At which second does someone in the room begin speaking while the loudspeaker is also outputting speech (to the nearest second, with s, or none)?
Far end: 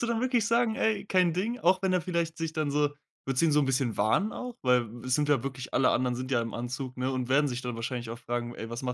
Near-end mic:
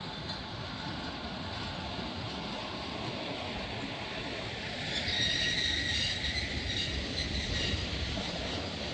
none